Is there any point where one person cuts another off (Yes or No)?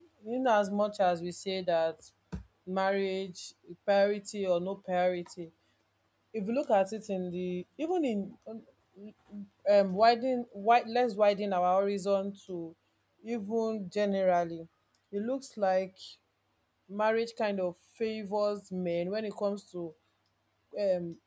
No